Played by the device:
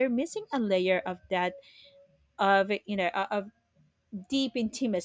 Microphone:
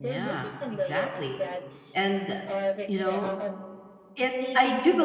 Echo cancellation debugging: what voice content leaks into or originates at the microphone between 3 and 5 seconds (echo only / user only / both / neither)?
both